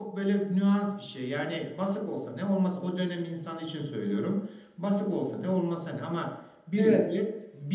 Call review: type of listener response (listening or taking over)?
listening